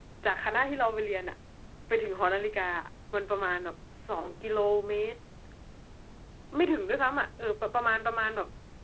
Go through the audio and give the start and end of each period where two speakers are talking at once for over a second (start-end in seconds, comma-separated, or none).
none